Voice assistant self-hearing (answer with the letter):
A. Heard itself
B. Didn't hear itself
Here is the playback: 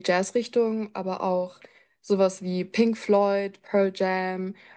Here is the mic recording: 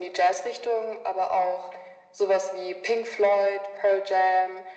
A